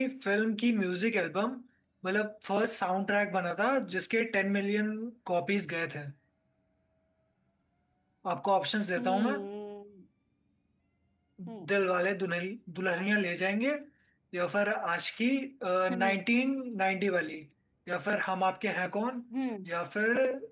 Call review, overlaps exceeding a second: none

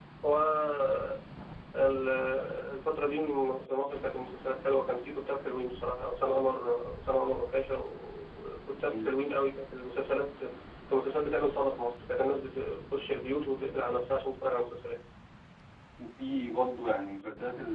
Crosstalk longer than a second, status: none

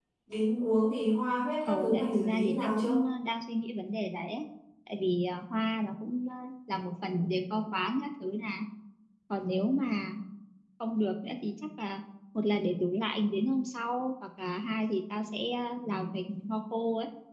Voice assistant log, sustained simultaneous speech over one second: present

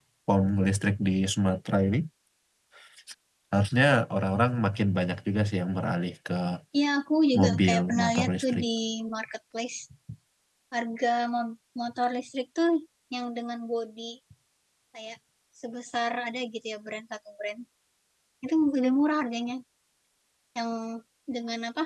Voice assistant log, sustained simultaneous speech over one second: present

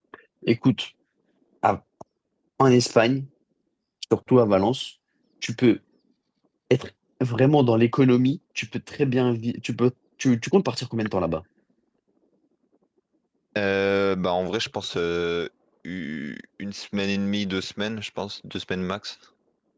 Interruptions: none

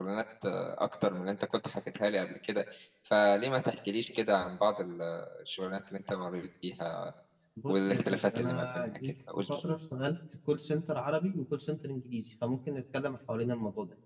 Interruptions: present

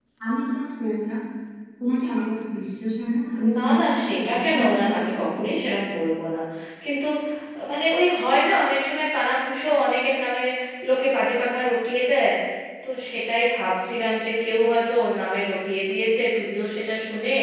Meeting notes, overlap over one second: present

